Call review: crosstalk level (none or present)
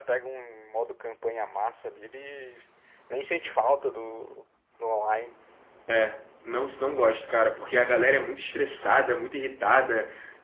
none